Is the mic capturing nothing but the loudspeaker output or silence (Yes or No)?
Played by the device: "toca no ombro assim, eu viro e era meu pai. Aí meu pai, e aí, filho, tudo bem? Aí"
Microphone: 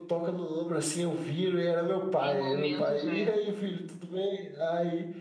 No